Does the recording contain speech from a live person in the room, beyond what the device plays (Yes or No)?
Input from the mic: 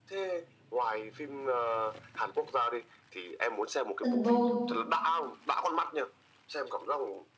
Yes